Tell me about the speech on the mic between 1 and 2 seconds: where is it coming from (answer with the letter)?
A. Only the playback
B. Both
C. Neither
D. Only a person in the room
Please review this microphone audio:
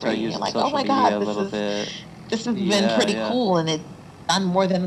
A